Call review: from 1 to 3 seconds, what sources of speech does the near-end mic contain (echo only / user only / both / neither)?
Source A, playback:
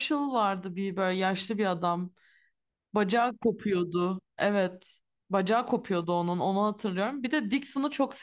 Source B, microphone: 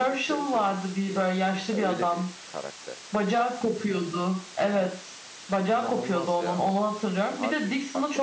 both